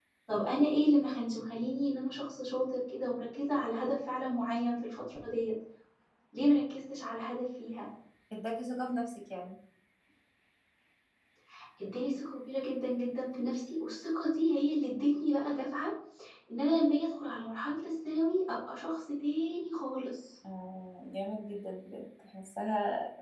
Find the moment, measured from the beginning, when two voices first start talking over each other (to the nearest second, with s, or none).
none